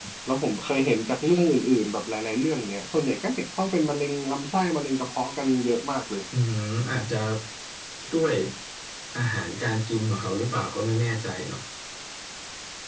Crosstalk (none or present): none